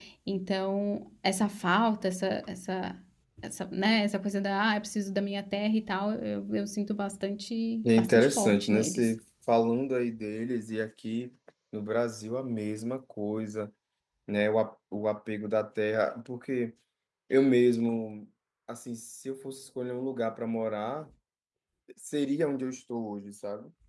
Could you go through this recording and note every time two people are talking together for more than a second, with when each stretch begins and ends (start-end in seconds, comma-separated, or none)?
7.8-9.1